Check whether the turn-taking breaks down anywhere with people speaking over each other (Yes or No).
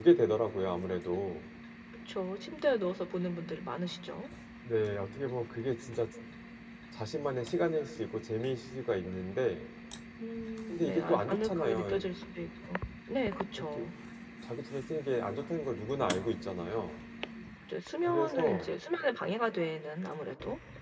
Yes